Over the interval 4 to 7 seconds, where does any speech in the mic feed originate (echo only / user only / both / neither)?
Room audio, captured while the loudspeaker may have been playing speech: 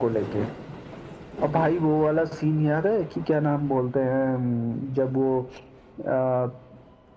echo only